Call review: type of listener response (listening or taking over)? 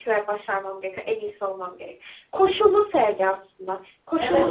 taking over